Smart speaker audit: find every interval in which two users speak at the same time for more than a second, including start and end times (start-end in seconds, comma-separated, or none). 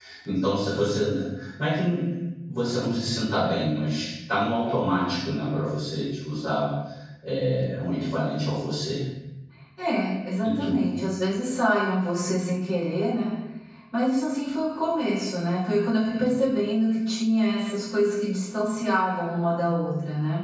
none